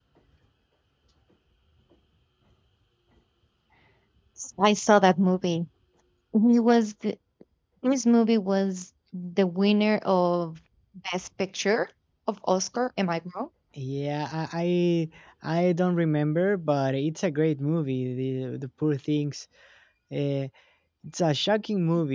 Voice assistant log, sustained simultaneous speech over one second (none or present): none